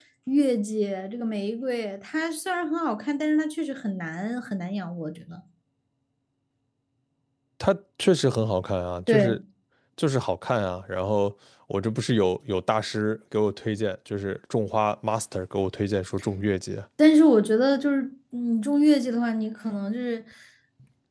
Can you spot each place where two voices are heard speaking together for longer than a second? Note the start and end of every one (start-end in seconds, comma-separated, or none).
none